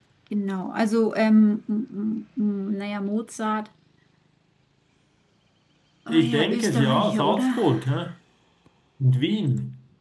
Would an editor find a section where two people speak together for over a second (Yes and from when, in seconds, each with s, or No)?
Yes, from 6.1 s